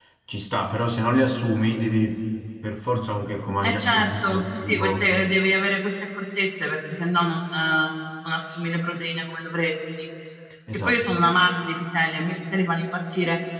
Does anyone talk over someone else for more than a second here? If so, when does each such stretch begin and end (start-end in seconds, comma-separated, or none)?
3.6-5.0